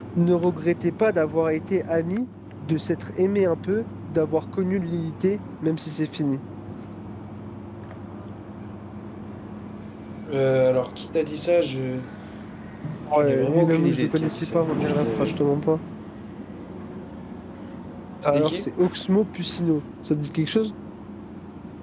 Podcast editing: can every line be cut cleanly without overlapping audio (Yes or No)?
No